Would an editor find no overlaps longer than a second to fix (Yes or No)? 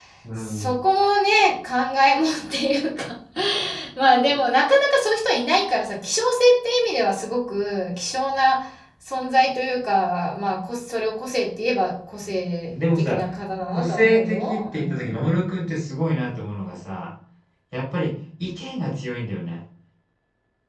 No